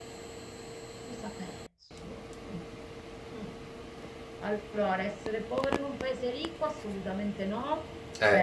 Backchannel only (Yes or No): Yes